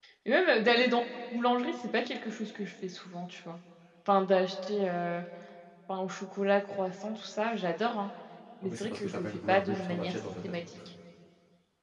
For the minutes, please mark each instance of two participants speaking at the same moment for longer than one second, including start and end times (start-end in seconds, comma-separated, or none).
8.6-10.6